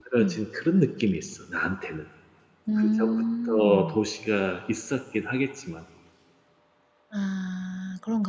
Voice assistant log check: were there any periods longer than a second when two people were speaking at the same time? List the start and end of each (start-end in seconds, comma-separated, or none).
2.8-4.0